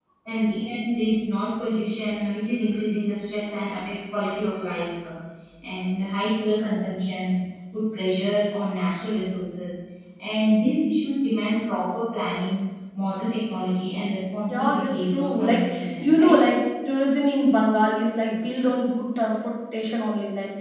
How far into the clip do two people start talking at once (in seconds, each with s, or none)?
14.5 s